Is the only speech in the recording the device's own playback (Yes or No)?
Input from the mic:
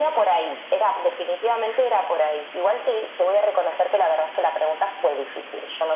Yes